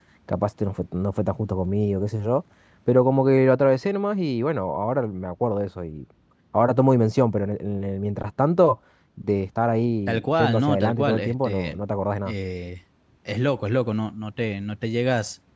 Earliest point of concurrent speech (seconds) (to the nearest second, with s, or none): 10 s